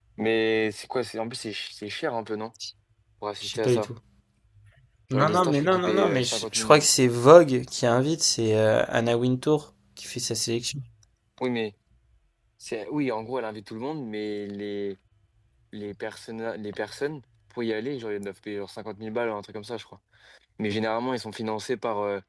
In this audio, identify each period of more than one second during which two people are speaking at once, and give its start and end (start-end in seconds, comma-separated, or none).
5.1-6.9